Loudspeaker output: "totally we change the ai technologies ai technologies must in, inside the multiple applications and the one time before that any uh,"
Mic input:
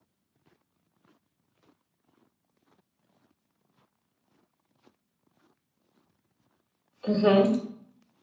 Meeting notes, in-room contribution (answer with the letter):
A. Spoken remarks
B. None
A